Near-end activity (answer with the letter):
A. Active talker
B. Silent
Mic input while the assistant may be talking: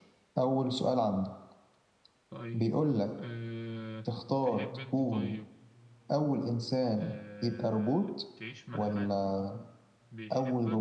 A